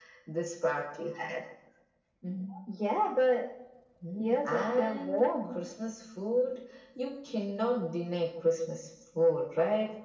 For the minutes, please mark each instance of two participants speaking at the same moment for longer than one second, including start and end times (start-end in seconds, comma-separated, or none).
4.2-5.6